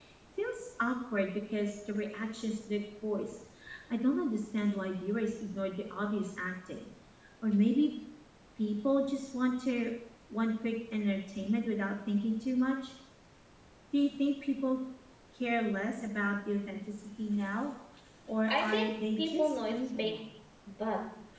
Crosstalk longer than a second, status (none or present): present